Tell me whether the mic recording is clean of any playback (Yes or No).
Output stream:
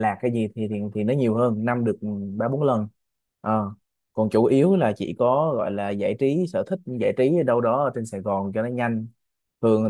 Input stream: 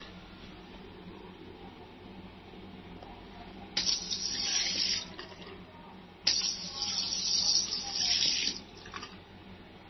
Yes